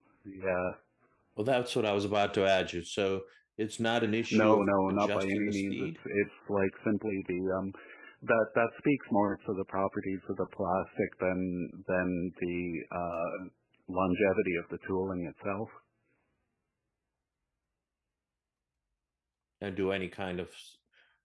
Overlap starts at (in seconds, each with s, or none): 4.3 s